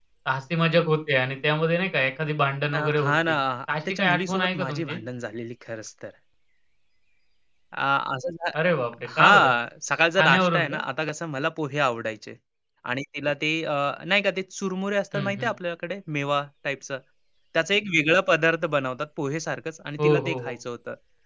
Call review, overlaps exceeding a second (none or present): present